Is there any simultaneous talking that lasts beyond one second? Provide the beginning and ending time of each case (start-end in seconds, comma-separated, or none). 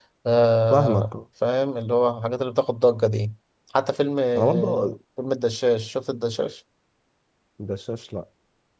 none